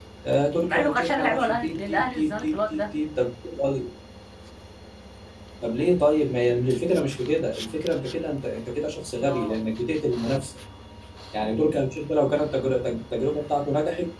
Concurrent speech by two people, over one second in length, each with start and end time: 0.7-2.8

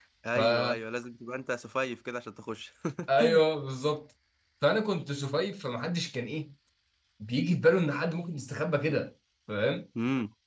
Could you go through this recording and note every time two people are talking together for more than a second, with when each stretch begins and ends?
none

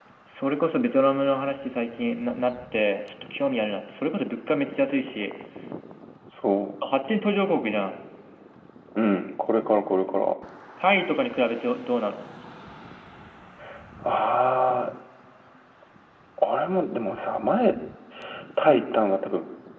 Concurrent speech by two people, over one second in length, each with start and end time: none

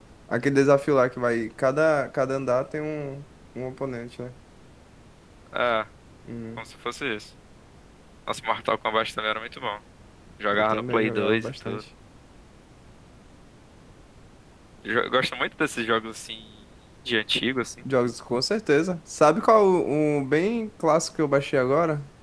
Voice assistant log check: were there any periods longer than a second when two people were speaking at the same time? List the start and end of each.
10.5-11.8

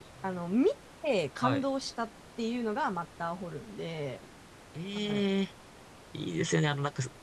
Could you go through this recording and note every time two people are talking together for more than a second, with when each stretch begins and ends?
none

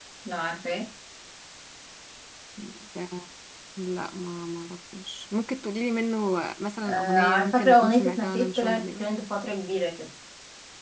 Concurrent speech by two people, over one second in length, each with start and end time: 6.8-9.1

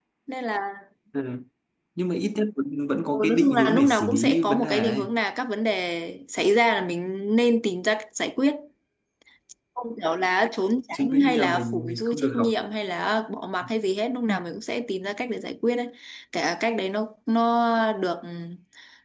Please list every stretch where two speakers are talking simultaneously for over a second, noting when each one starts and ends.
3.1-5.1, 10.9-12.5

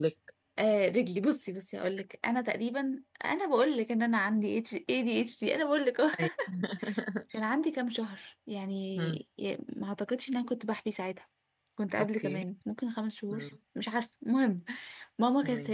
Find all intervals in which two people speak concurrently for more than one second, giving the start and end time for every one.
none

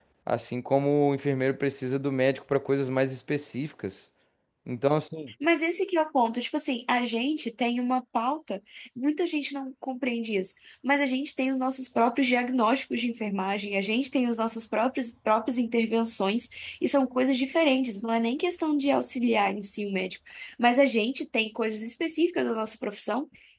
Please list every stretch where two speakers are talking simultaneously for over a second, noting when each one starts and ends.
none

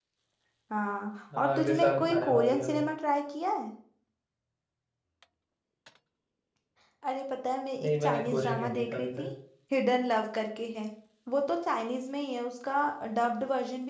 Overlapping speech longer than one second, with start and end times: 1.4-2.8, 7.8-9.2

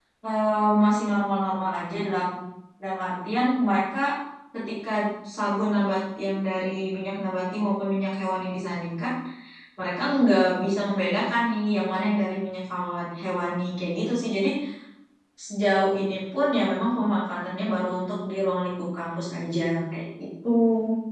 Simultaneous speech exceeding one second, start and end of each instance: none

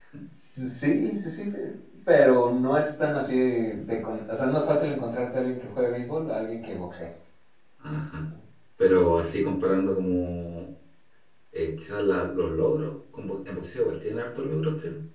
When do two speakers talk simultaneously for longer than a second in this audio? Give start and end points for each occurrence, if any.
none

